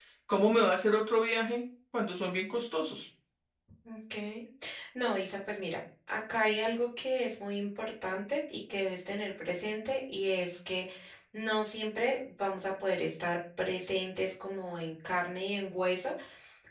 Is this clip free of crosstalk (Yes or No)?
Yes